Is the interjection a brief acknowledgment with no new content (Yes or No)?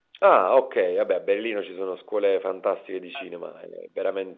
Yes